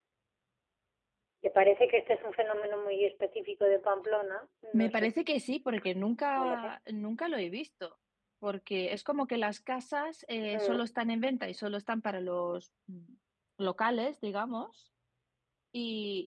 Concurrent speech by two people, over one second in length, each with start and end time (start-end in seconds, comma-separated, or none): none